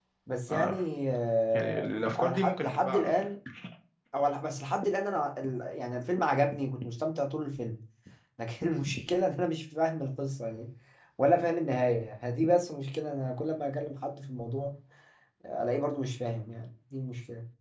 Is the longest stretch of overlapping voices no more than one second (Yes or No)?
No